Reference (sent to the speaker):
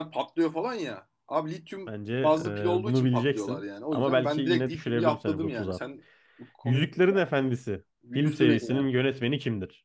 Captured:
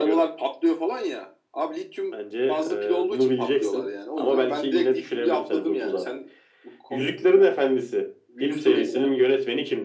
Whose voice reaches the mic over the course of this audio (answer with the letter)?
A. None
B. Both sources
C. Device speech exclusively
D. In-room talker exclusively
C